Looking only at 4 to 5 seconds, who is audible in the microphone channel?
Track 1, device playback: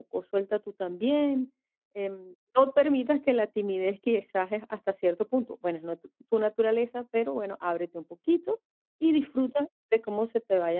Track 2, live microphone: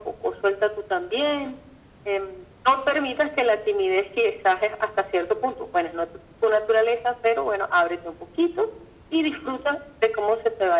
echo only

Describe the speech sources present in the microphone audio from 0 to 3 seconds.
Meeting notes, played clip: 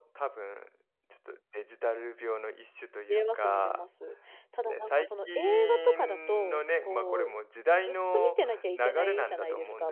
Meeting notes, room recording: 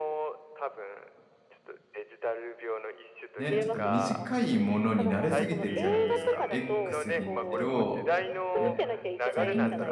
echo only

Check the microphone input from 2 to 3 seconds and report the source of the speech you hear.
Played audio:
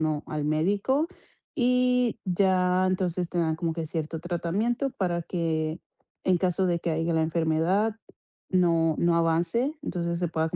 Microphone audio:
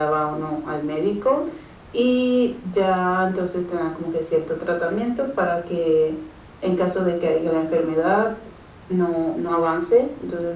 echo only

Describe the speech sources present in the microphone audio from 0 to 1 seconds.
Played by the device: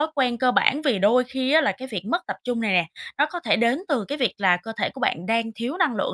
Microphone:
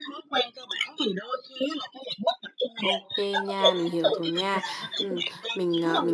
echo only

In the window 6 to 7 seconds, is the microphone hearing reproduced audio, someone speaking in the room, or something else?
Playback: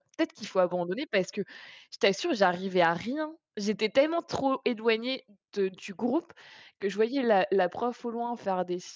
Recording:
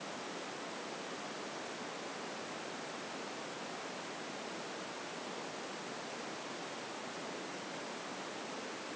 neither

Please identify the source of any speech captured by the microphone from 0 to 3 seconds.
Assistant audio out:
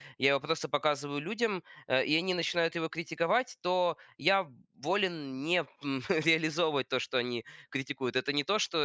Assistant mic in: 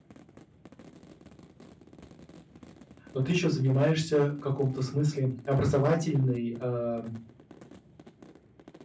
neither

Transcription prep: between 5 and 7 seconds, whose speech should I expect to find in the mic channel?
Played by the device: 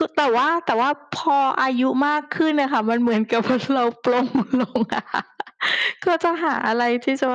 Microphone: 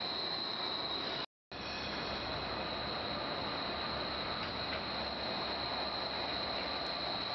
neither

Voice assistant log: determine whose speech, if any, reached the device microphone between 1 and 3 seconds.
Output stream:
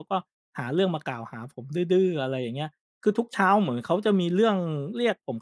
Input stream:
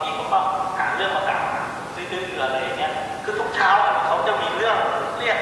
echo only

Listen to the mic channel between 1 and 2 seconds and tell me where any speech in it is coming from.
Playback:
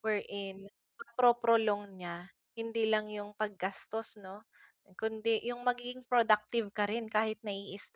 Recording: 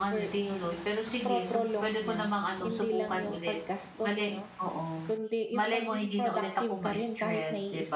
both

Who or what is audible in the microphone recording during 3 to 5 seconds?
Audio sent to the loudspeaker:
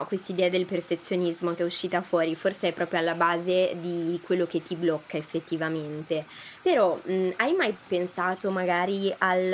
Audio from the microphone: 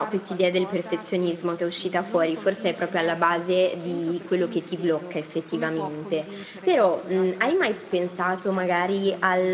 both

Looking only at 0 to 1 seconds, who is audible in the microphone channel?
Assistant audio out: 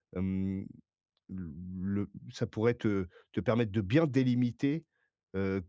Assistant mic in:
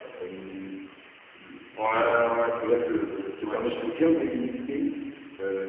echo only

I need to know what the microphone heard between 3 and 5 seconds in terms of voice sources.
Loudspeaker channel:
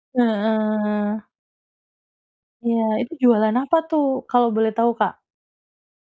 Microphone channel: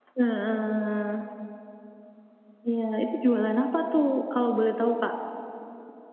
echo only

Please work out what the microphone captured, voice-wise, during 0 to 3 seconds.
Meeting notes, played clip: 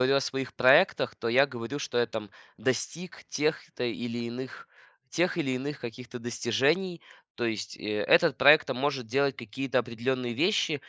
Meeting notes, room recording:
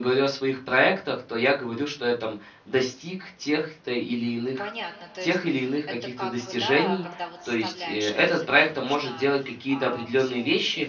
echo only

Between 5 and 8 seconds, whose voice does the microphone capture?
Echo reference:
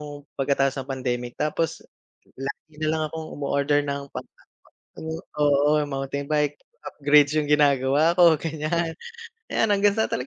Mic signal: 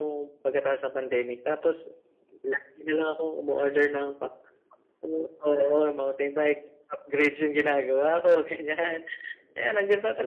echo only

